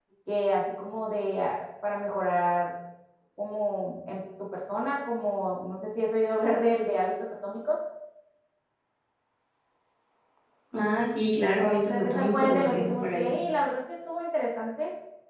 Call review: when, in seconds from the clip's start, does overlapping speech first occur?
11 s

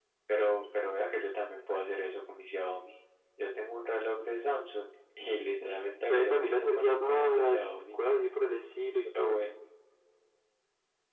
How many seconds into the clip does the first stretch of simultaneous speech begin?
6 s

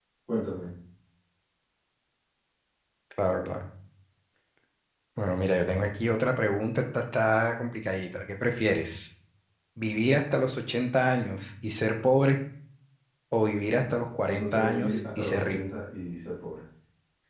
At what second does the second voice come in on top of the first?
14 s

